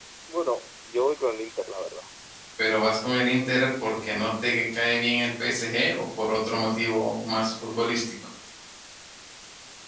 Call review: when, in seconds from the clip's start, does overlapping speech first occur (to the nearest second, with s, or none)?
none